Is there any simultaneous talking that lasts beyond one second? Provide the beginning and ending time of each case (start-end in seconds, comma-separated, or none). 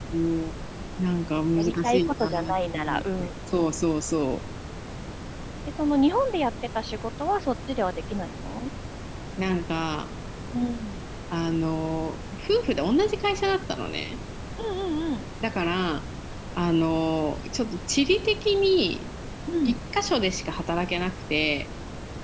1.6-3.7